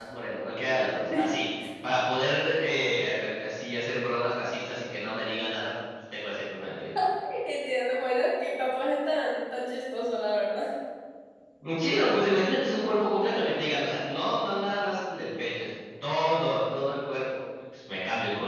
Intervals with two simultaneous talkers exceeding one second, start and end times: none

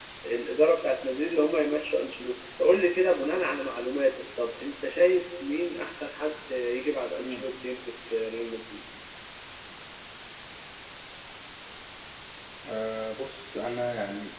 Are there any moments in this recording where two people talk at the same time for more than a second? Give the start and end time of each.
none

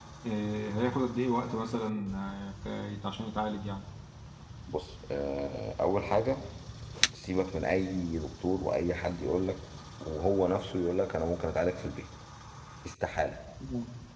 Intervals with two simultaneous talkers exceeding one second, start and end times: none

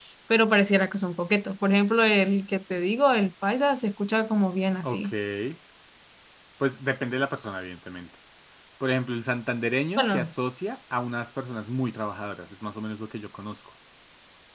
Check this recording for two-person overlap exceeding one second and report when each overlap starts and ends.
none

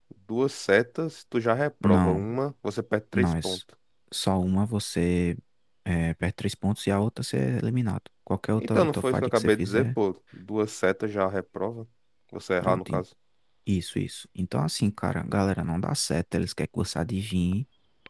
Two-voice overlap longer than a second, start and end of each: 8.6-9.9

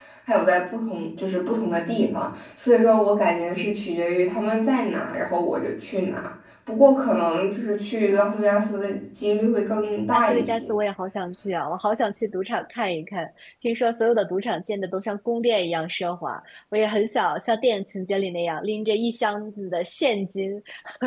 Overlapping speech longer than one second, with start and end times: none

